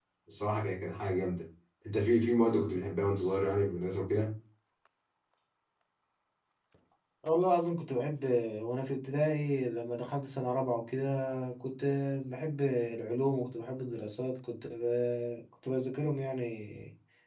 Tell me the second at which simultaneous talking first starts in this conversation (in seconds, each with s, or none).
none